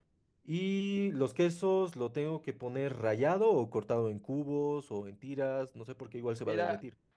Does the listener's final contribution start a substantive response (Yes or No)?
Yes